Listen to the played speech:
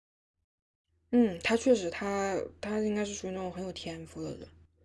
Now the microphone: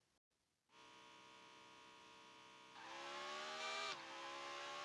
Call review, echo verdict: none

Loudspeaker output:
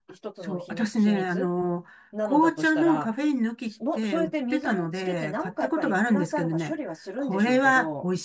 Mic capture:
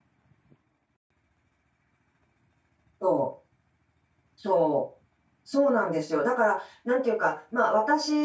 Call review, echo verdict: none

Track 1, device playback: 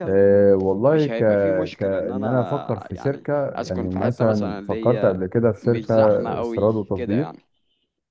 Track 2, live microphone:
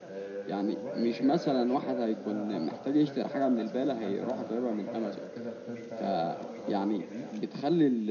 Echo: present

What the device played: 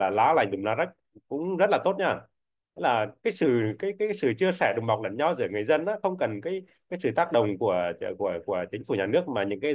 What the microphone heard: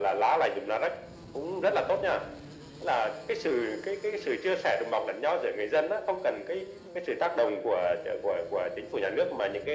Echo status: present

